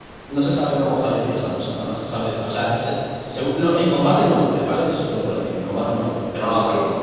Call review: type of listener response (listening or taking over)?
taking over